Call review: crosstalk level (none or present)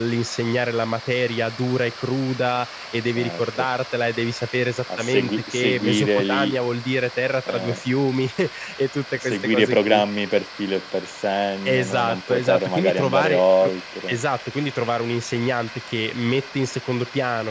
present